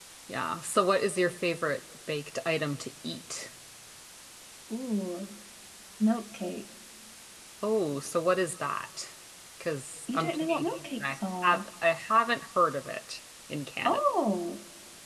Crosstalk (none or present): present